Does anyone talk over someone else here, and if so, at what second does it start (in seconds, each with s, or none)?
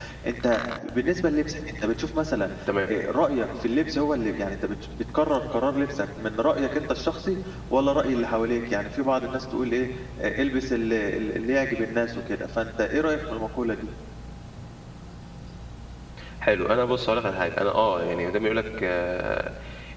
none